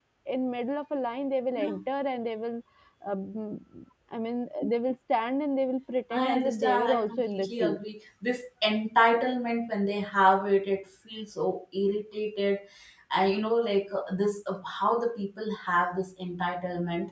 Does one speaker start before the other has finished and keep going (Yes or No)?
Yes